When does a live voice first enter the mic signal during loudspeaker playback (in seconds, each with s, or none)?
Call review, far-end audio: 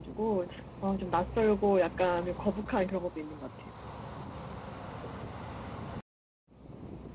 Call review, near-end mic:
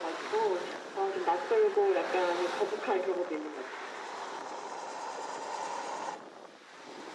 none